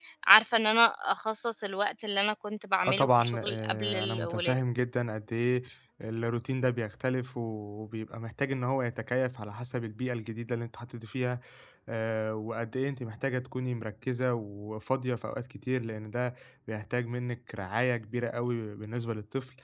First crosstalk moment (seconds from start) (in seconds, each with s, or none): 2.8 s